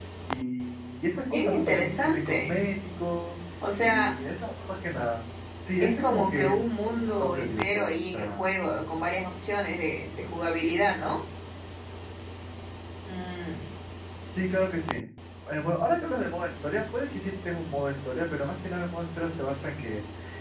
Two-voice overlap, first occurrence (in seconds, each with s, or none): 1.3 s